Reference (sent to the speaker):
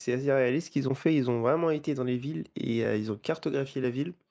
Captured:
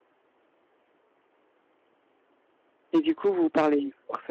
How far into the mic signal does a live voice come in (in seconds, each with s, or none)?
2.9 s